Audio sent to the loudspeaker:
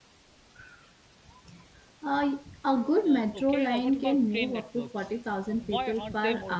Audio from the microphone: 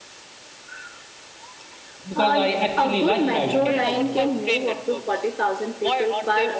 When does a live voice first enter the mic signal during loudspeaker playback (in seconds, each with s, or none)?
2.1 s